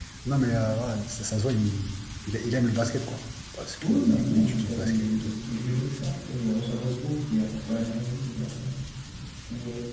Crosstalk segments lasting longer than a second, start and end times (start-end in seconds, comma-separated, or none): 3.8-5.3